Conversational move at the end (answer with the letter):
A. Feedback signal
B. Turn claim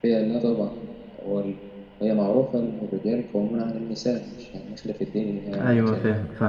B